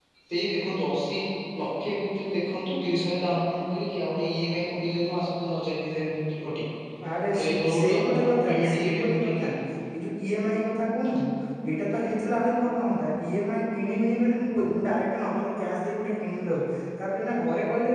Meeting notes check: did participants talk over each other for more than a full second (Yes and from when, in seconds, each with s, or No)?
Yes, from 7.3 s